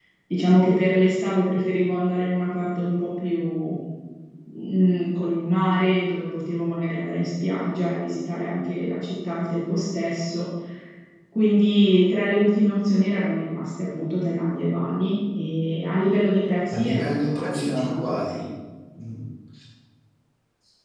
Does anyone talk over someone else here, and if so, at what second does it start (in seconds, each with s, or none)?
16.7 s